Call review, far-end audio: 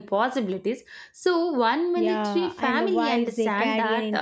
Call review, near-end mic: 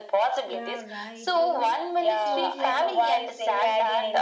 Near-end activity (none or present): present